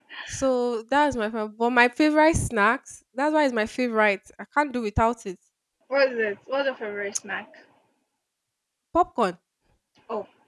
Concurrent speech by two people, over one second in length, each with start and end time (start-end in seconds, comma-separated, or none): none